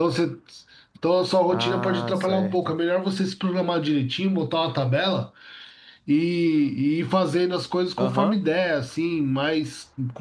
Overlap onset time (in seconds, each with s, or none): 1.5 s